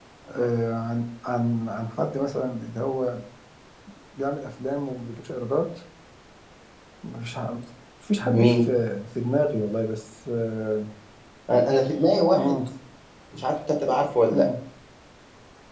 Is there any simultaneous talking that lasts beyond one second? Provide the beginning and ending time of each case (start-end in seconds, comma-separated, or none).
none